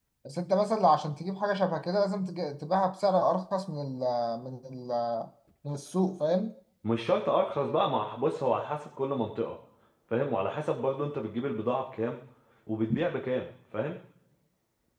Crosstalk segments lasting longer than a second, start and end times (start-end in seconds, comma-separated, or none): none